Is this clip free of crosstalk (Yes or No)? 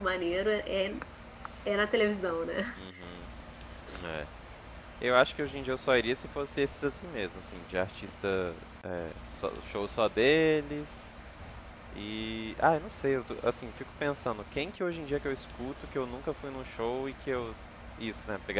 Yes